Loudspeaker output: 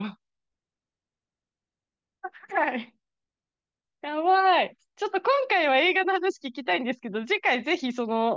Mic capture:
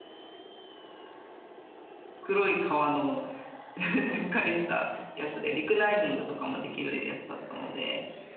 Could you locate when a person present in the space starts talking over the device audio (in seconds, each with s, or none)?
2.2 s